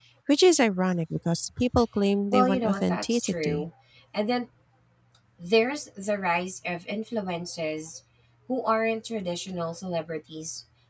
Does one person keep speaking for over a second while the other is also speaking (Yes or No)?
Yes